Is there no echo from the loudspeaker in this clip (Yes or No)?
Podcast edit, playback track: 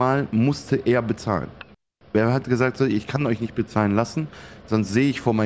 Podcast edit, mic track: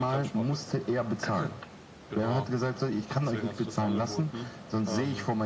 No